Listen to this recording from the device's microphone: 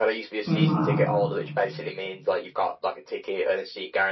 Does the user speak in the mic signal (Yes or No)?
Yes